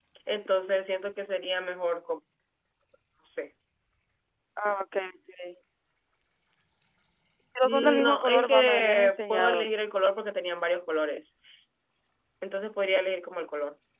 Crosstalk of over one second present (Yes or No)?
Yes